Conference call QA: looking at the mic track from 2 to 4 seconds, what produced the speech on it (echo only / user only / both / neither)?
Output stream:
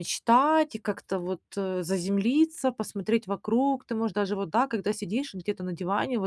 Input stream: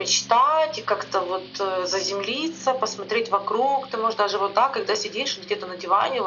echo only